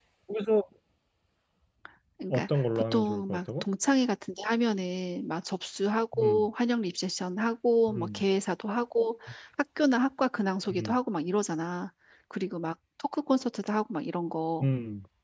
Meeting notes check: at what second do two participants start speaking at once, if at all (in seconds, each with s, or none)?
2.3 s